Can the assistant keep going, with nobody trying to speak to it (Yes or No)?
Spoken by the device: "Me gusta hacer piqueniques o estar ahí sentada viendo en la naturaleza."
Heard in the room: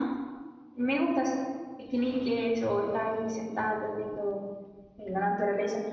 Yes